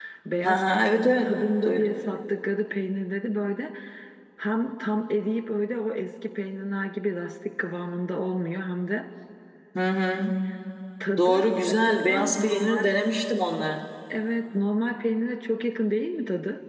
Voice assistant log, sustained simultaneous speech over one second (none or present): present